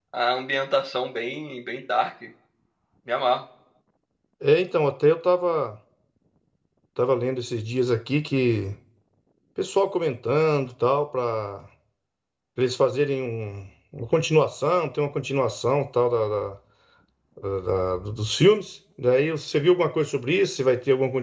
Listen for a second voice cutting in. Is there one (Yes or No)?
No